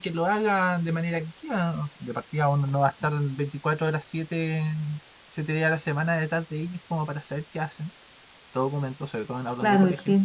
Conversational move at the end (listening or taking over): taking over